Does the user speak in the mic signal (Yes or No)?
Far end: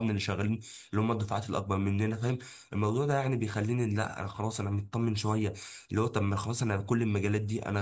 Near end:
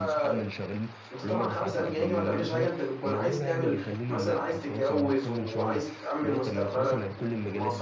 Yes